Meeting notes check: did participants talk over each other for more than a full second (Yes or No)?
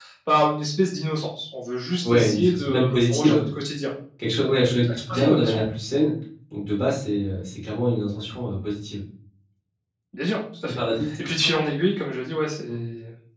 Yes